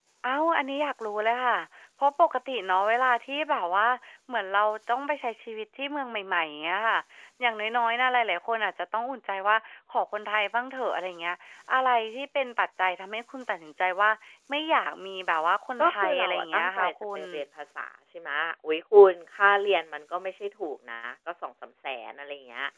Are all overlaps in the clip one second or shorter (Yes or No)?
No